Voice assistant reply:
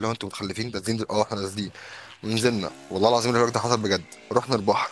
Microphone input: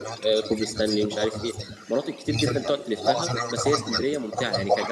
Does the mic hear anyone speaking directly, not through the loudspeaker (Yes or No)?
Yes